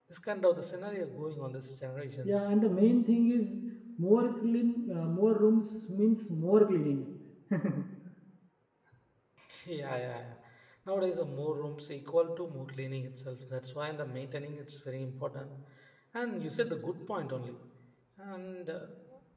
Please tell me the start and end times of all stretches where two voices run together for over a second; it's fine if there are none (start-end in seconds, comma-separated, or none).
none